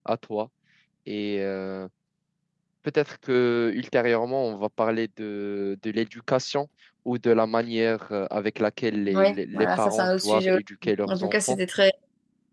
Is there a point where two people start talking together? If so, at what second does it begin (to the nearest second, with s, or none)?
9 s